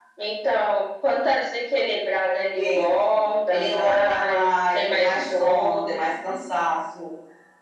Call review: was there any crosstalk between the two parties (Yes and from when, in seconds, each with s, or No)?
Yes, from 2.5 s